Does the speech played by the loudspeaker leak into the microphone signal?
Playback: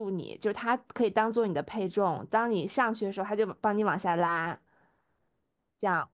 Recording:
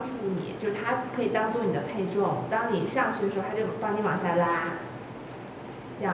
Yes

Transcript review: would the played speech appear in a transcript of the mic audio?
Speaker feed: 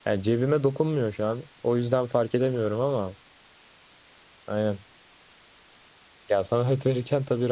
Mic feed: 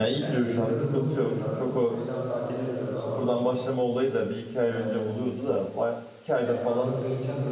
Yes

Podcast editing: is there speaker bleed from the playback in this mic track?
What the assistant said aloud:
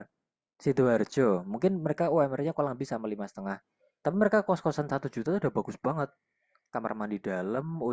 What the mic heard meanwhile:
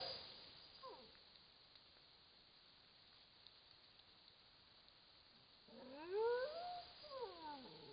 No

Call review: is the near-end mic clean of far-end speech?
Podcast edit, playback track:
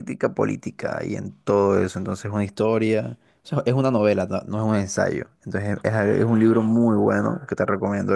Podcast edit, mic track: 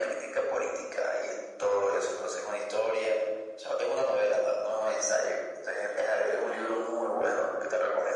No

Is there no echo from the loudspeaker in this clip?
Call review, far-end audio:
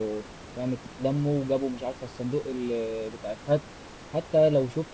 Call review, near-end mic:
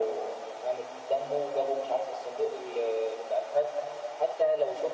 No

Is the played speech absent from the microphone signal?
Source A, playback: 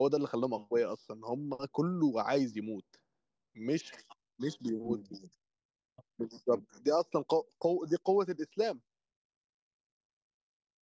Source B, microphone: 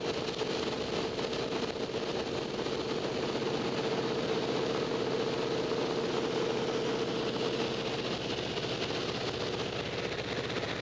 Yes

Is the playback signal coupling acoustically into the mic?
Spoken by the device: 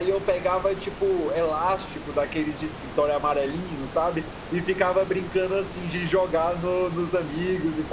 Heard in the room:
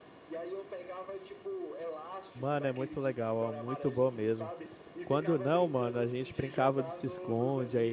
Yes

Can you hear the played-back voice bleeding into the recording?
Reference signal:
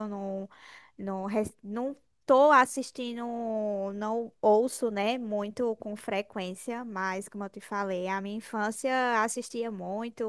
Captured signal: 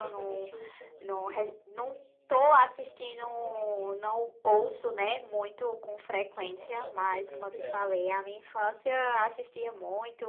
Yes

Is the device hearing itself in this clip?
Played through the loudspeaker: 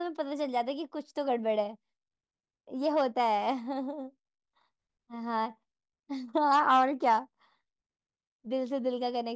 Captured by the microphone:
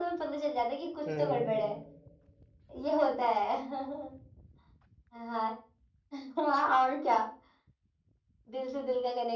Yes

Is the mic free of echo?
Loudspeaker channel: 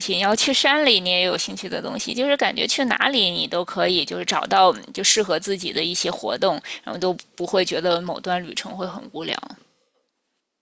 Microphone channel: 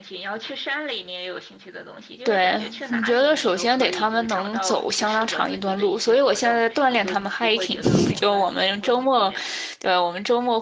No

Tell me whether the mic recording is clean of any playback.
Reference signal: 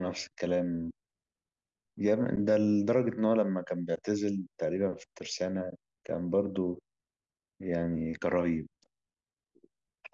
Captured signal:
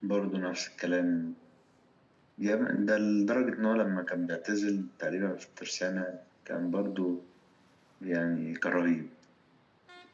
No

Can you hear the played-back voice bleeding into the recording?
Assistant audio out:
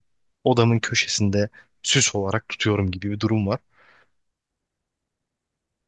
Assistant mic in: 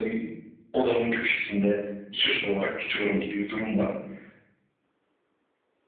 Yes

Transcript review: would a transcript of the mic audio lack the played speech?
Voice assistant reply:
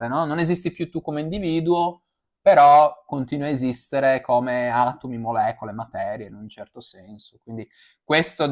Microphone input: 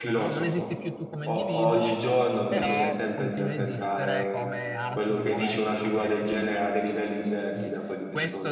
No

